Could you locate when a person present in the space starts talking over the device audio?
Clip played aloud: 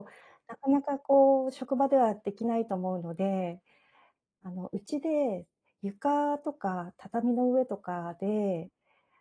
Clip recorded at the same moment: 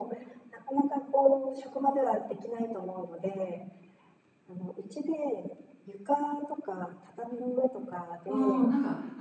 8.2 s

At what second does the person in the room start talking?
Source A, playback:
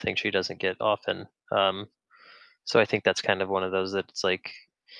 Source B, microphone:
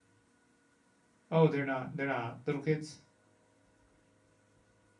1.3 s

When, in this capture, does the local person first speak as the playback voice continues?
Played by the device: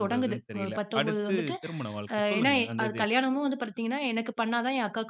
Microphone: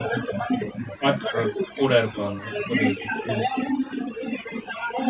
1.0 s

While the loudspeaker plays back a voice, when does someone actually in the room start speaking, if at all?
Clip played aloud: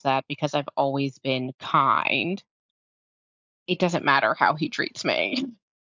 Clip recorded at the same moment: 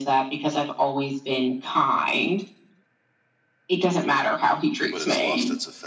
4.9 s

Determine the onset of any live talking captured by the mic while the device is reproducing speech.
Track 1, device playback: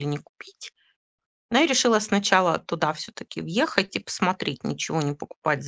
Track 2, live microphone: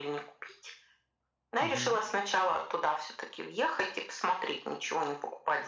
1.6 s

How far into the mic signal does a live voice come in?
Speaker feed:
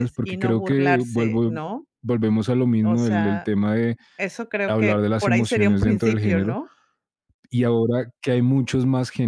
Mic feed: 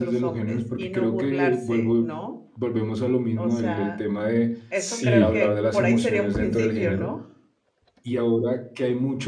4.7 s

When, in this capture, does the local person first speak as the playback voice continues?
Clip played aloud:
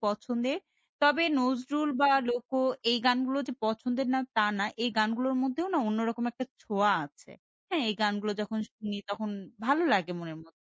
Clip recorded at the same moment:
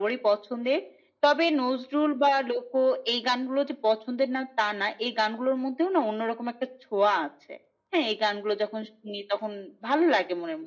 none

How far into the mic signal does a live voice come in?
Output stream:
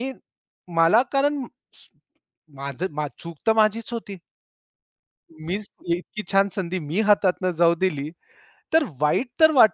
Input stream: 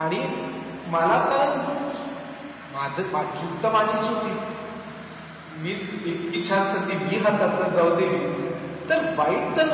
none

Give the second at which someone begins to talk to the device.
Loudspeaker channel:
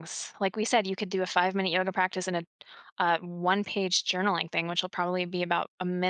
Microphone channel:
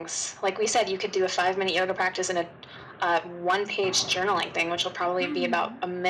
5.2 s

